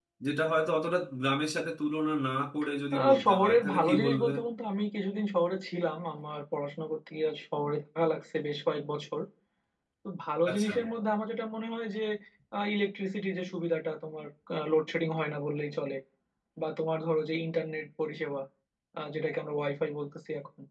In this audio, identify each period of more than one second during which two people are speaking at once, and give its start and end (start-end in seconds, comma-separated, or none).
2.9-4.3